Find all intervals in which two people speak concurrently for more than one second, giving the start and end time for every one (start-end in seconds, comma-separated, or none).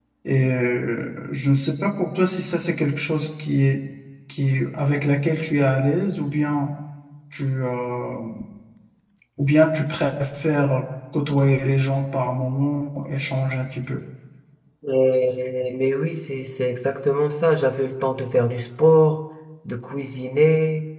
none